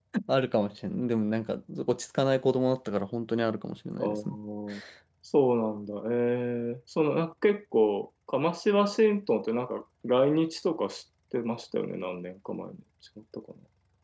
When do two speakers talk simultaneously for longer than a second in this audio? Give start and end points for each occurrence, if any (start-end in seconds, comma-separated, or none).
none